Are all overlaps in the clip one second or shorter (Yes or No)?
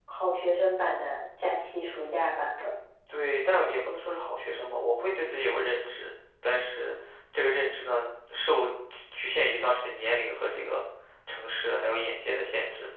Yes